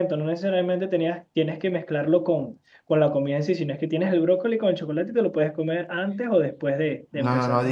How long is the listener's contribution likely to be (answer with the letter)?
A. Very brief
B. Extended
B